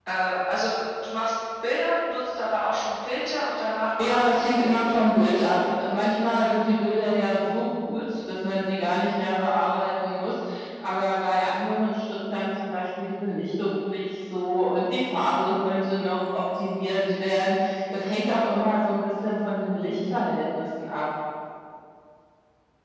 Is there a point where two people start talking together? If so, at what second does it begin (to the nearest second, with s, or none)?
4 s